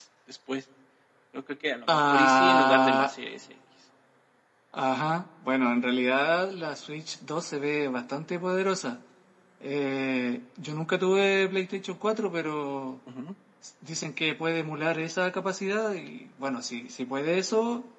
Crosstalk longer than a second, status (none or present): present